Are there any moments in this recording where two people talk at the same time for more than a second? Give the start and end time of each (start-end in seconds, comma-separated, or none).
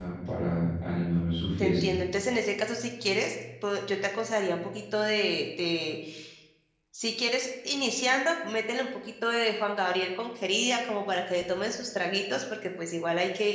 none